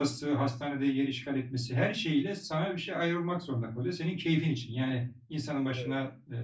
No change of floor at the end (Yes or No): Yes